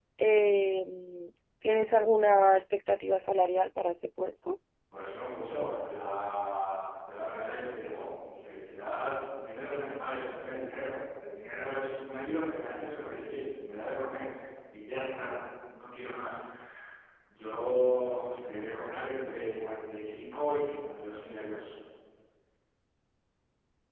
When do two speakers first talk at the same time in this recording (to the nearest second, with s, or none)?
none